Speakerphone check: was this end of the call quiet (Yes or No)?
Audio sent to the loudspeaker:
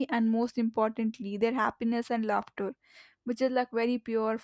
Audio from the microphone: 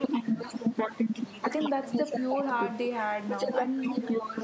No